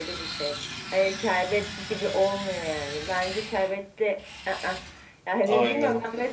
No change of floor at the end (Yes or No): Yes